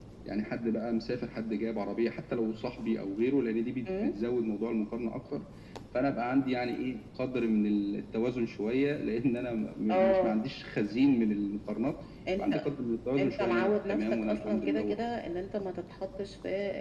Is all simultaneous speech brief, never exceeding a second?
No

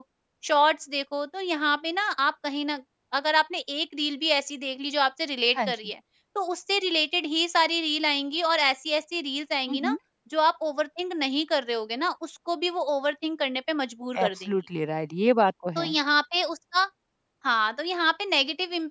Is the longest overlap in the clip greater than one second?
No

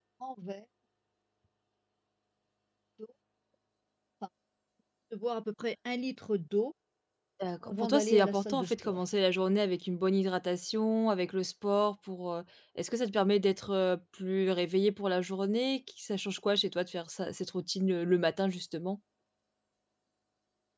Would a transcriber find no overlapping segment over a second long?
No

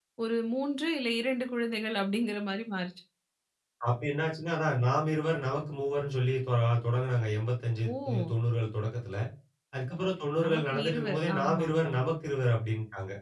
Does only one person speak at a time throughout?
No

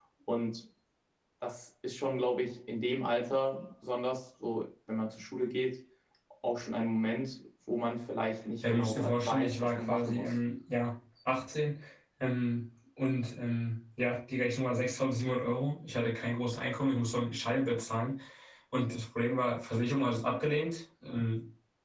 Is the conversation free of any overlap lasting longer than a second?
No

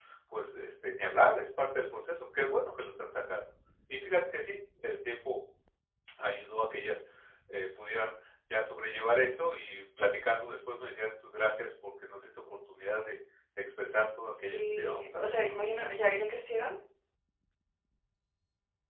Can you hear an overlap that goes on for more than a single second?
Yes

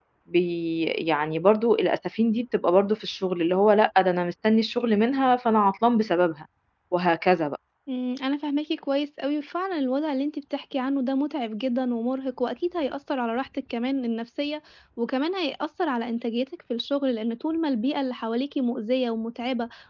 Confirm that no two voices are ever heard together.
Yes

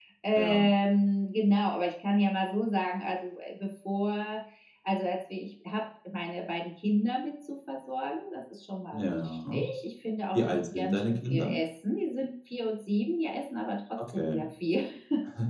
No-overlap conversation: No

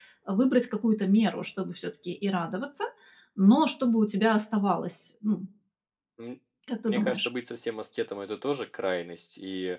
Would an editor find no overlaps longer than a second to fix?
Yes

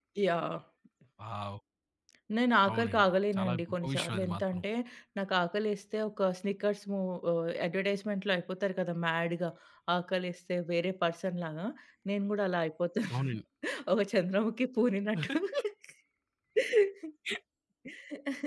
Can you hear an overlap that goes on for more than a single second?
Yes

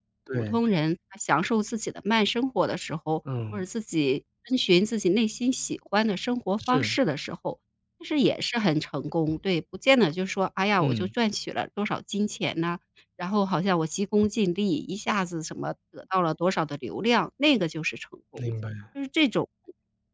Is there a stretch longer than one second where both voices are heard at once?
No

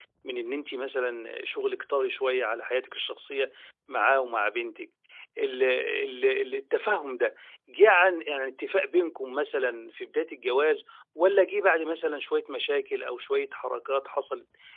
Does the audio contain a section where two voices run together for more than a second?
No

